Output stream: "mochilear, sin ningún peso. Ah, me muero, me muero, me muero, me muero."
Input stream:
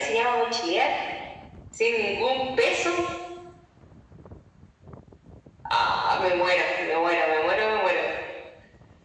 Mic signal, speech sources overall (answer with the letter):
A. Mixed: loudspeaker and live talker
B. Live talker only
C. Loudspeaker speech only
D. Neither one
C